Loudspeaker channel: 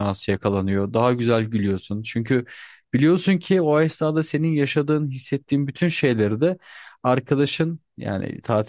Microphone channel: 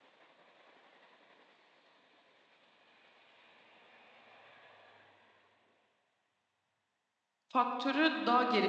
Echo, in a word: none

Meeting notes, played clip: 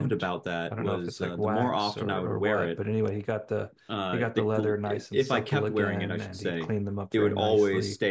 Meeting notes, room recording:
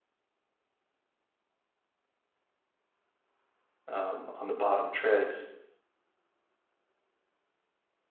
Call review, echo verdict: none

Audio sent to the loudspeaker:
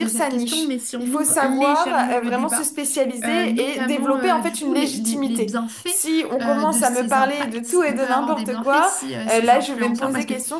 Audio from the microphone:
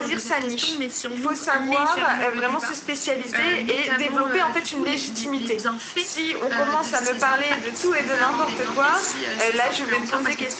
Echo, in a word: present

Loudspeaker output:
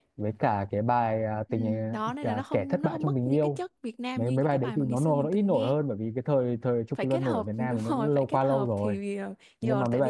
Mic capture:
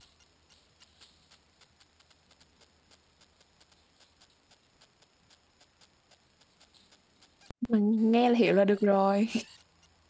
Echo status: none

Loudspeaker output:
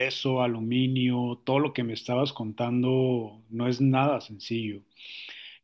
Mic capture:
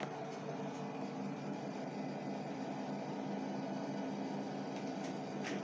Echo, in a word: none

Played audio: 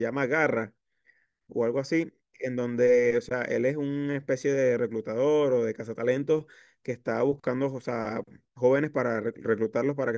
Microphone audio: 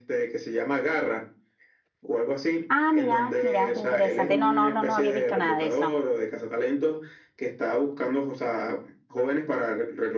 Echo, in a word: present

